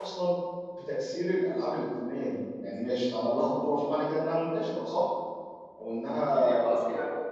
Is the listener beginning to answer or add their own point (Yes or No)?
Yes